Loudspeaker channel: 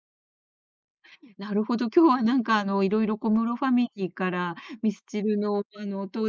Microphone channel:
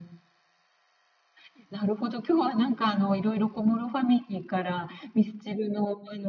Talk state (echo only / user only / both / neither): echo only